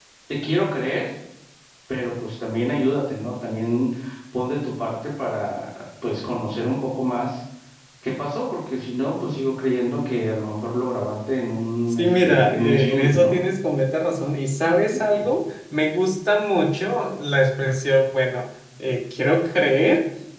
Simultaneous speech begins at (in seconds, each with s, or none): 11.9 s